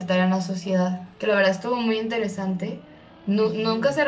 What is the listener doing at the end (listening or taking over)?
listening